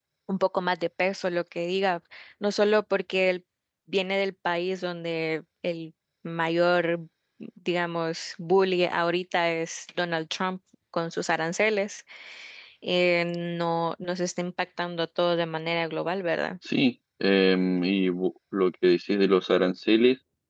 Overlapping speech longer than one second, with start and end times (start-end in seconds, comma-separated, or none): none